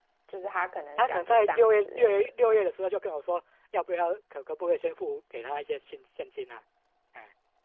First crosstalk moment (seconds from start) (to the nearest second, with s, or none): 1 s